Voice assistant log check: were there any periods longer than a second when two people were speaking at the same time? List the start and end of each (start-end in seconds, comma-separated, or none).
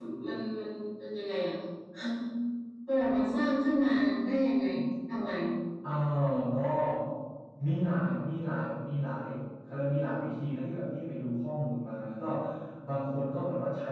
none